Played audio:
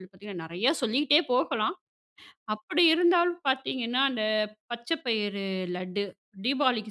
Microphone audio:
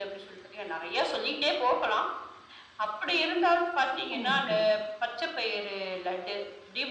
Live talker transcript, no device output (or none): சீப்பு முறுக்கு.